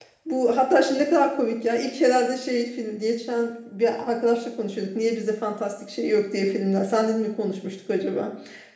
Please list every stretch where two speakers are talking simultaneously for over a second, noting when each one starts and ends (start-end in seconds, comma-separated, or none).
none